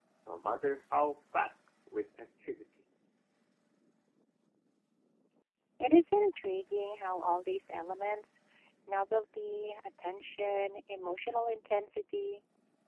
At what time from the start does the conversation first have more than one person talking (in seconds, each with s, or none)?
none